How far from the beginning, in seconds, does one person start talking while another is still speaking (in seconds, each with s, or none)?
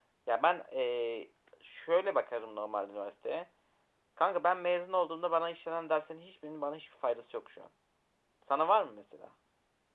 none